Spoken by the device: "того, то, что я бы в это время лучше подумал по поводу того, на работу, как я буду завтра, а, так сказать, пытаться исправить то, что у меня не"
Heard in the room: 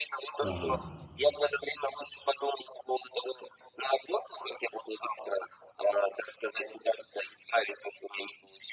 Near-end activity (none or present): present